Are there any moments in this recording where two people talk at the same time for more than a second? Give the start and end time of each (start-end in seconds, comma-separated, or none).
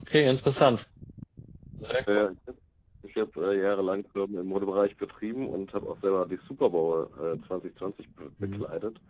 none